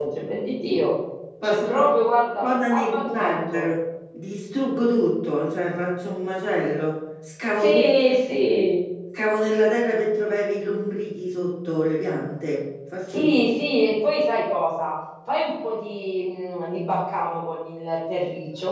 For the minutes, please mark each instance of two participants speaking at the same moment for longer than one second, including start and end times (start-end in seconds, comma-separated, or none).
2.4-3.6